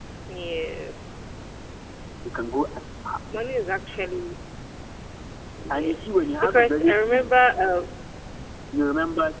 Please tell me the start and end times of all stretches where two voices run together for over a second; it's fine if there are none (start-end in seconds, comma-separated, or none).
5.7-7.3